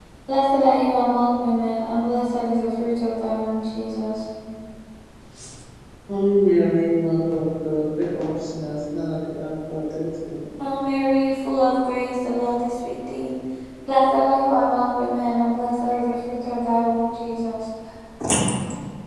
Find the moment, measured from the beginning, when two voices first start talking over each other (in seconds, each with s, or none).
none